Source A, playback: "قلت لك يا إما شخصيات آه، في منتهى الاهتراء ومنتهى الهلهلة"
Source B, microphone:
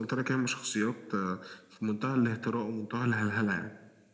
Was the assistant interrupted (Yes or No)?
No